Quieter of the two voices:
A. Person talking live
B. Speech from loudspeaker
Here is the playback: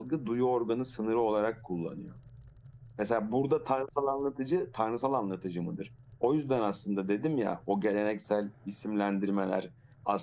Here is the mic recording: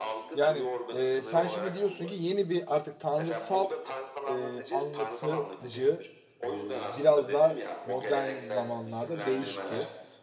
B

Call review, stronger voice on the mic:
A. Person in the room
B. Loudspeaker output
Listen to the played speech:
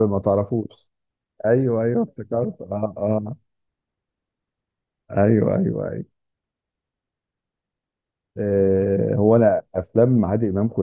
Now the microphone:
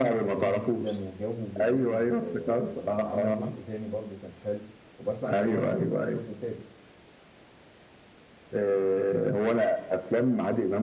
B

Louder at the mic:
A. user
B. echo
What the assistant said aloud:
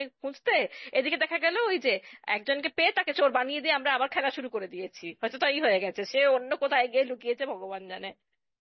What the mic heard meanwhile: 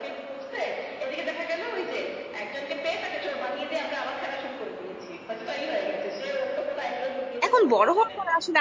A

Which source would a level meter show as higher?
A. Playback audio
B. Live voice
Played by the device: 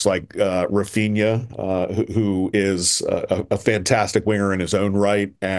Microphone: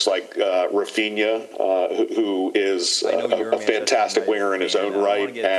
A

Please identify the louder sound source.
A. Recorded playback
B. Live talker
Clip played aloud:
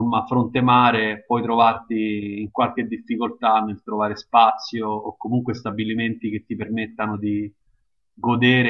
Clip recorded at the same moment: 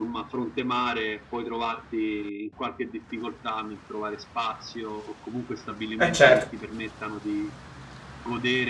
B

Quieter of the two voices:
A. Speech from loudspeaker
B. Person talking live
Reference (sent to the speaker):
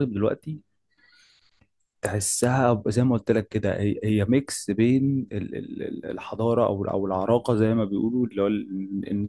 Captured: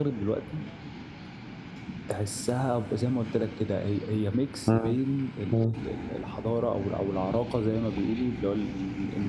A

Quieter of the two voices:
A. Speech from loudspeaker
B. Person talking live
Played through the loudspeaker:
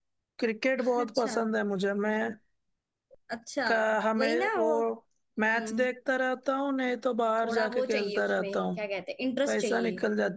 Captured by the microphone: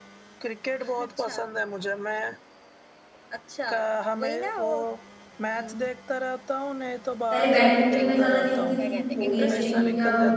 A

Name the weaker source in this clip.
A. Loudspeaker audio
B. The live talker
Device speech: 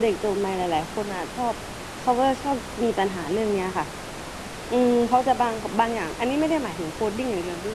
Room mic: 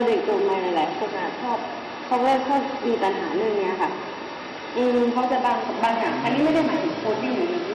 B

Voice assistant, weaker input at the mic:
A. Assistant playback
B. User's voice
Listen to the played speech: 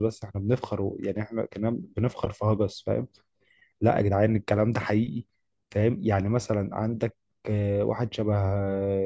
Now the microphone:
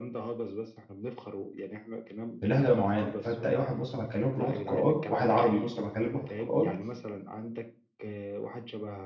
A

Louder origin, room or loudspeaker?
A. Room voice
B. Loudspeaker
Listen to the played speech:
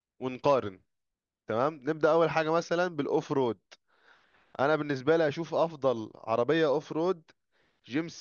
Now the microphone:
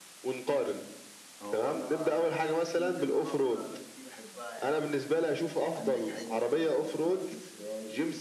B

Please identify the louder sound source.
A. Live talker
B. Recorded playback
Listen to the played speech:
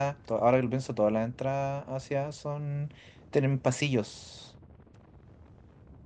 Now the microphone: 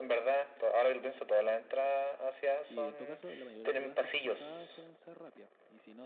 B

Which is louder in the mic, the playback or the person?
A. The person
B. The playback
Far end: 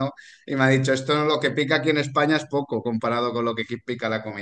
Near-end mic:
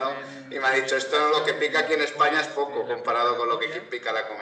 B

